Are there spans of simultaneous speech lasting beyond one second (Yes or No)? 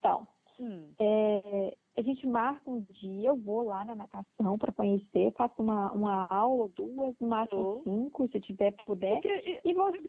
No